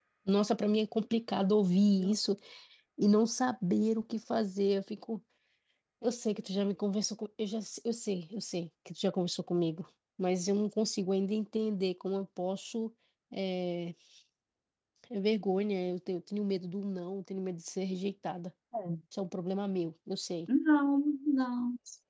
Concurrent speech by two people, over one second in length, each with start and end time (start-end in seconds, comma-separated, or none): none